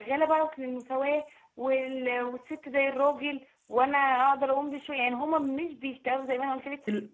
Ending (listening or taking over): listening